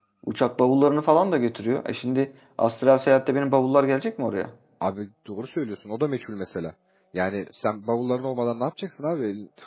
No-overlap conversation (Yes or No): Yes